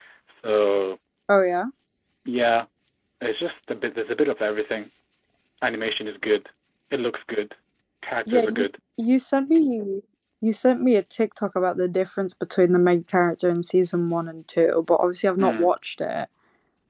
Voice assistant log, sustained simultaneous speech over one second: none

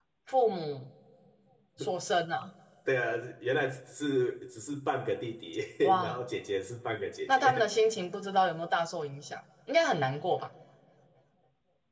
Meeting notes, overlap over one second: none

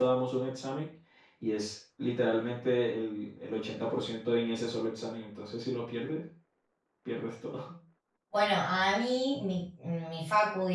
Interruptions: none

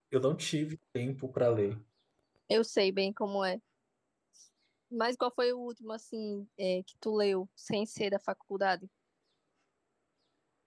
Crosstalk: none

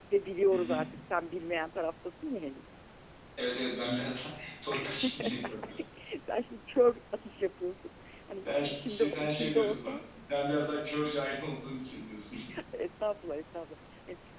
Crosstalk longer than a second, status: present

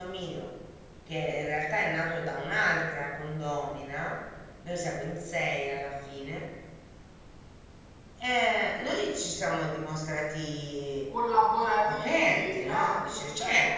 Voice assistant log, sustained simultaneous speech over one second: present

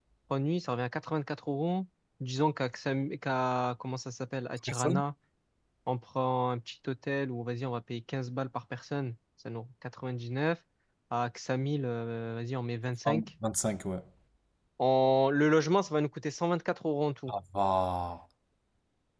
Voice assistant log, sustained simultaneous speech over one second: none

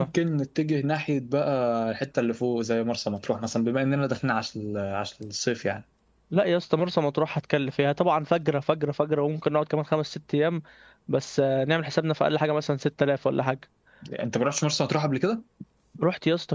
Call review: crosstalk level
none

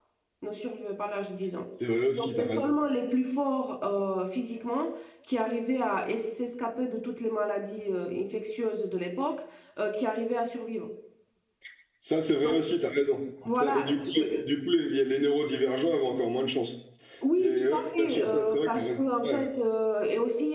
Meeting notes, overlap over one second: present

